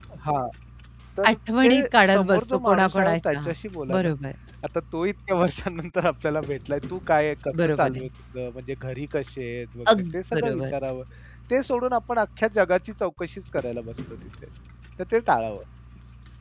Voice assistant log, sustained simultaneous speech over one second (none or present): present